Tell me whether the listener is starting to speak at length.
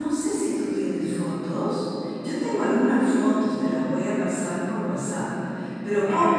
No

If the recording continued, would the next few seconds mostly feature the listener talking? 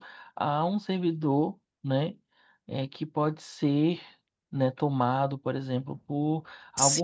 No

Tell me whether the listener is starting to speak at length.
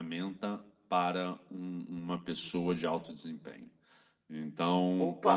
No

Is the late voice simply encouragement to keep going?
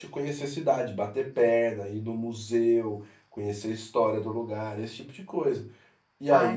No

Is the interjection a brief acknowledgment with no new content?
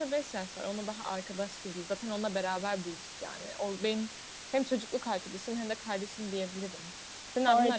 No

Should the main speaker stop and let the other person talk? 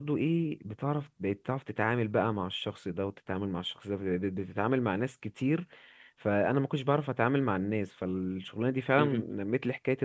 No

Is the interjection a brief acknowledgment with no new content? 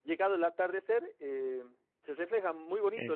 No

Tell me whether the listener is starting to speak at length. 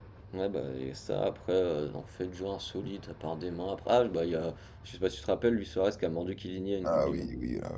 Yes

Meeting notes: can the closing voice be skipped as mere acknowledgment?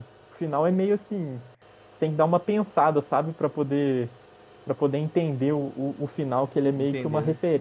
Yes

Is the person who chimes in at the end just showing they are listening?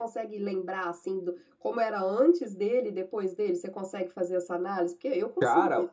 No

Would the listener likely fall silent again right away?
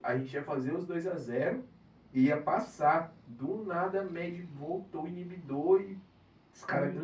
No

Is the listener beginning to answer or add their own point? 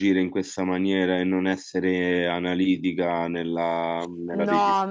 Yes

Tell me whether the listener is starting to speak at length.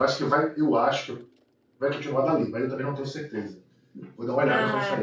Yes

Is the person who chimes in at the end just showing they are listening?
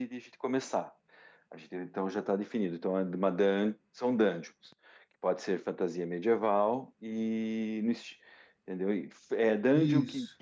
Yes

